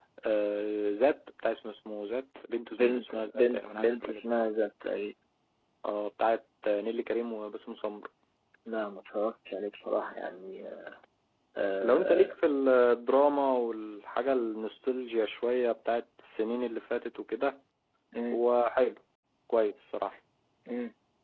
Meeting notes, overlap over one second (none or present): present